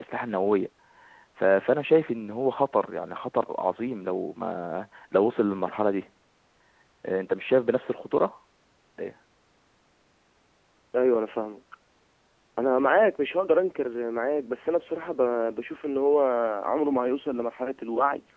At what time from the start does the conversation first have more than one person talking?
none

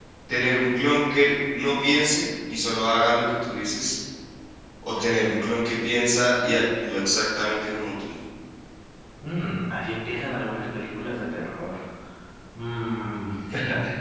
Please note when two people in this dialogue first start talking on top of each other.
none

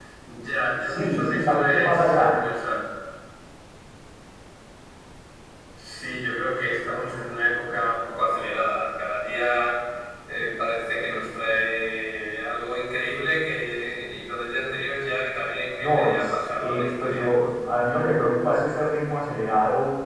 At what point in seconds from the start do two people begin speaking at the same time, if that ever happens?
0.8 s

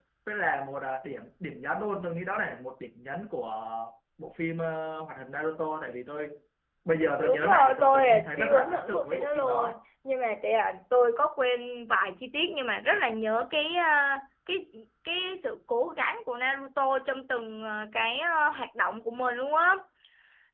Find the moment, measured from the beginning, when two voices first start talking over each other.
7.2 s

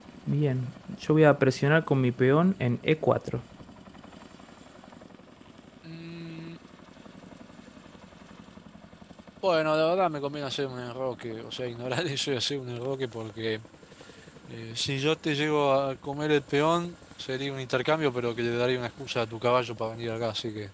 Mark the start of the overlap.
none

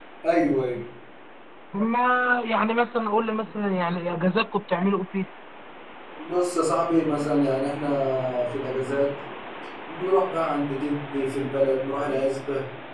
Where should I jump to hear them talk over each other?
none

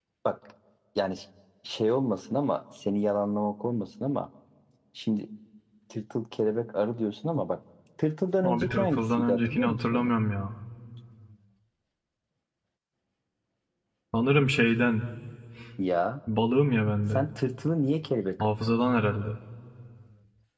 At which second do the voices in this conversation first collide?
8.4 s

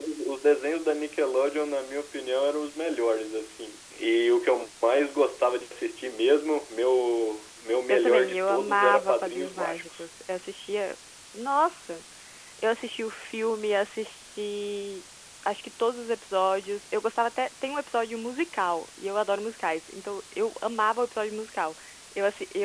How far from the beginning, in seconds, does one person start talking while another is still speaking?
7.9 s

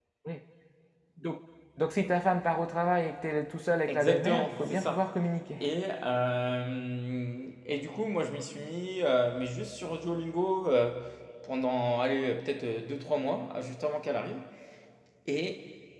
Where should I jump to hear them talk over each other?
3.9 s

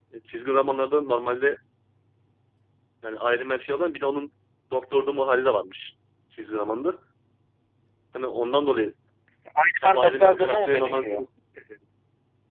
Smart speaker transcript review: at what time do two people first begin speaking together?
9.8 s

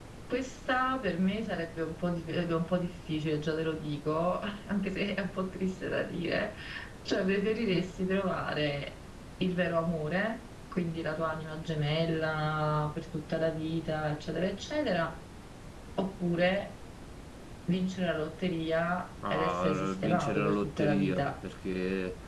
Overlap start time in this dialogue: 19.2 s

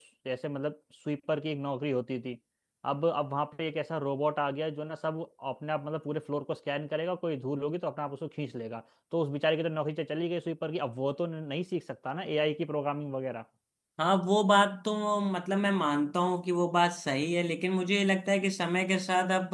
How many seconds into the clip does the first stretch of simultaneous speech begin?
none

